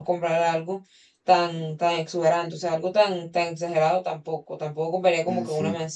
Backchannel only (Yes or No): Yes